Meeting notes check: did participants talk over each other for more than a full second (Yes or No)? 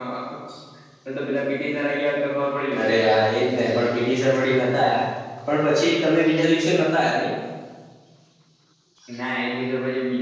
No